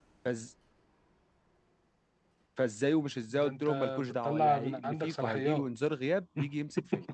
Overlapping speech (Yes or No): Yes